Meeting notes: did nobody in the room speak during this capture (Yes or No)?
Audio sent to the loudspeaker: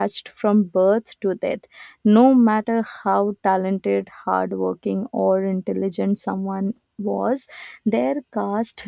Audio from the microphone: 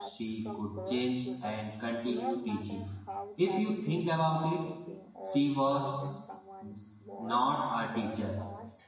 No